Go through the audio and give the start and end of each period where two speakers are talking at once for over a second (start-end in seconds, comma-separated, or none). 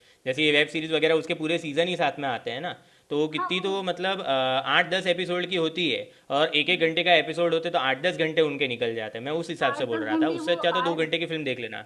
9.7-11.0